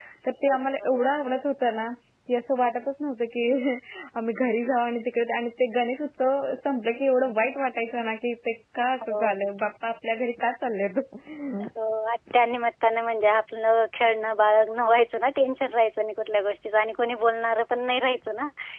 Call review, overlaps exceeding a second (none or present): none